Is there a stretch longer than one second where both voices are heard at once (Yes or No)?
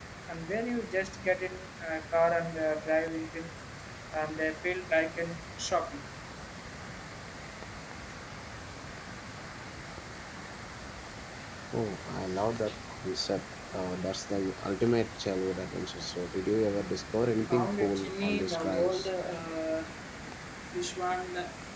Yes